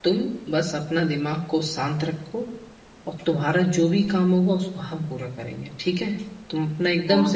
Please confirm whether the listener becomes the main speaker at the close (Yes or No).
Yes